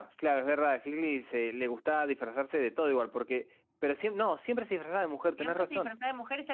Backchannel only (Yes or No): No